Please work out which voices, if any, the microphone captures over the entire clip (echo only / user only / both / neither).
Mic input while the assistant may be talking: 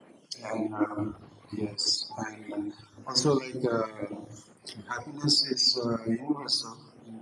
echo only